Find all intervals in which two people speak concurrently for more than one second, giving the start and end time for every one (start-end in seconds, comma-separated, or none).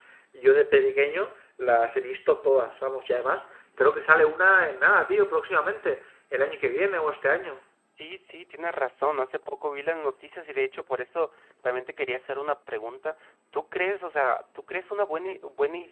none